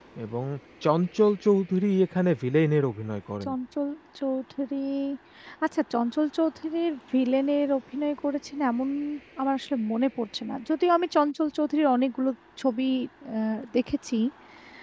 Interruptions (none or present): none